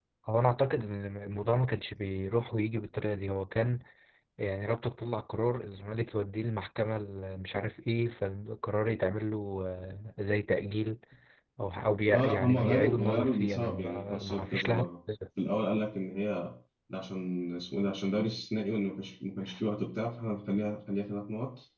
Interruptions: present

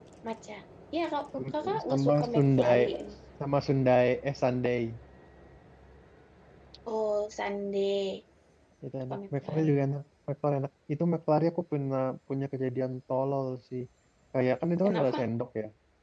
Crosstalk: present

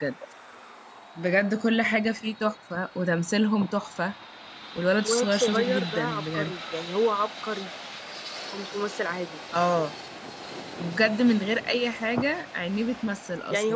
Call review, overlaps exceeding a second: present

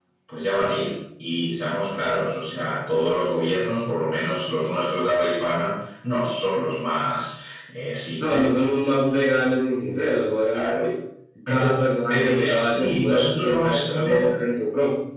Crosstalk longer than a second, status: present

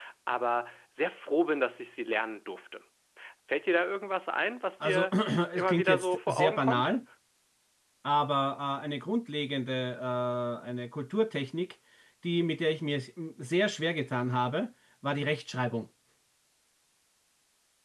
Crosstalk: present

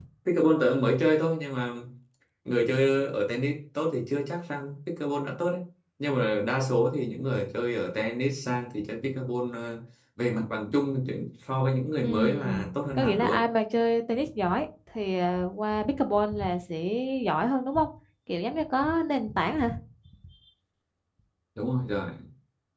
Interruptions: present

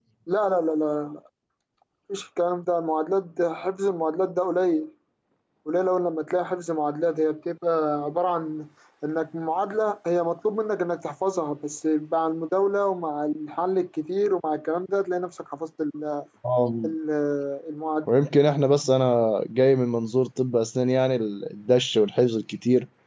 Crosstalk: none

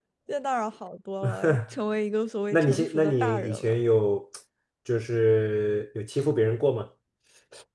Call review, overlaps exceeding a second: present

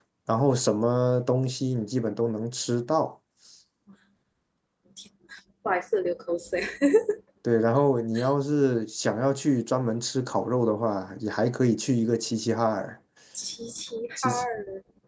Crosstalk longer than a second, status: none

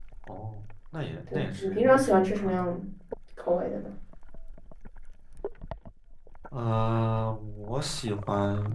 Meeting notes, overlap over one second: present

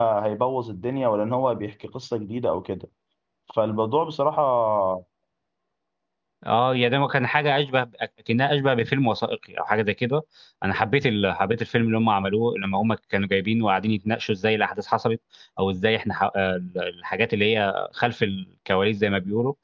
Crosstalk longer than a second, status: none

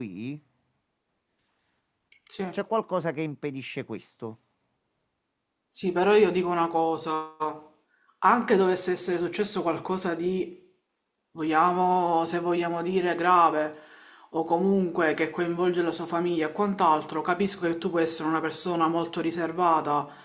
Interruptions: none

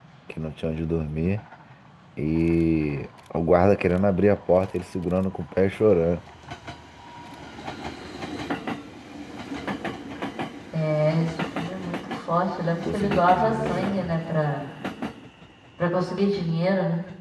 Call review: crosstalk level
present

